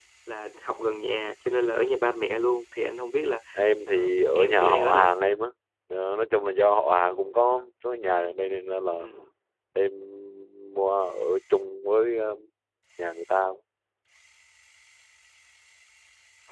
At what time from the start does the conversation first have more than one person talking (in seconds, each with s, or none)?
3.9 s